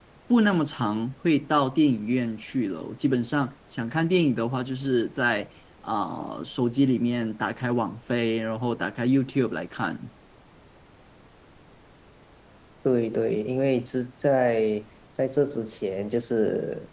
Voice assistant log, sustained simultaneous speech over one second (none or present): none